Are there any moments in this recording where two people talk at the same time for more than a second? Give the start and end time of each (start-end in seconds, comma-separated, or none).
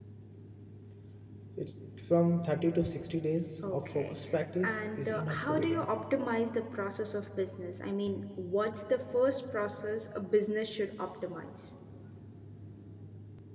4.6-5.9